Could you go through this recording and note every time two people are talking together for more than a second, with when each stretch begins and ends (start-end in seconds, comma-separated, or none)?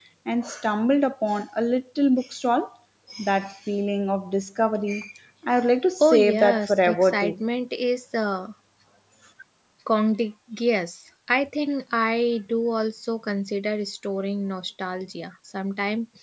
6.0-7.3